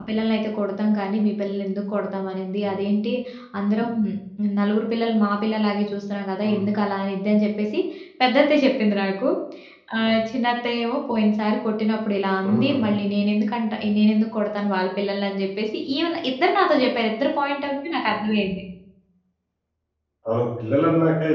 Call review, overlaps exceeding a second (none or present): none